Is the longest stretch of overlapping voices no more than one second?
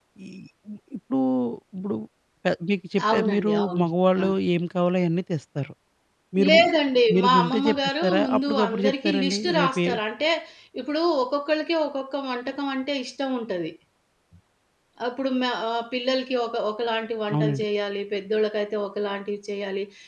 No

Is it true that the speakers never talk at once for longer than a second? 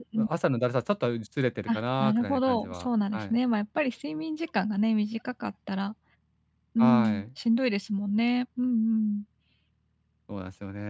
No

